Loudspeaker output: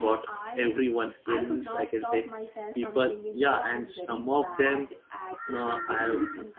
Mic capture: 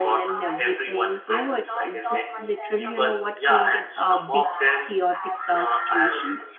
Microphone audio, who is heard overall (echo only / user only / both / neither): both